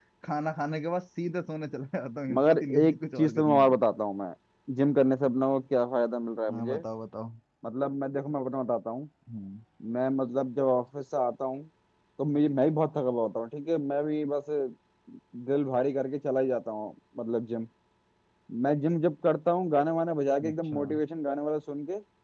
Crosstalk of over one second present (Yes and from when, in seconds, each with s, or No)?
Yes, from 2.4 s